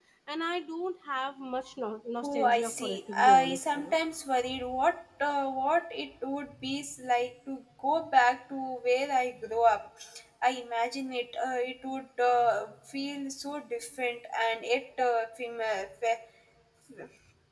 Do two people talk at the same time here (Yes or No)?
Yes